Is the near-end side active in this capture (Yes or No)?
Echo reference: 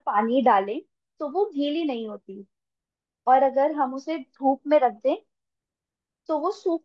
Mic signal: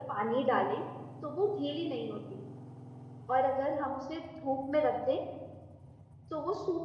No